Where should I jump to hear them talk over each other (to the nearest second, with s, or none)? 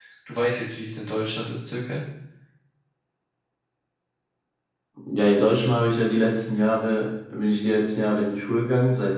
none